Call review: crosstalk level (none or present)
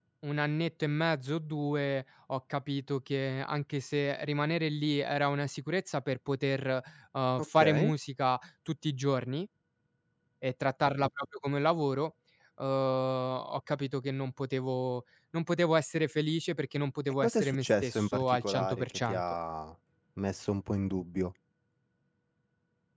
present